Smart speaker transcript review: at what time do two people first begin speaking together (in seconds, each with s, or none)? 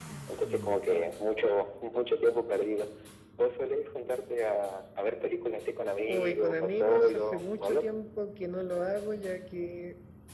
6.1 s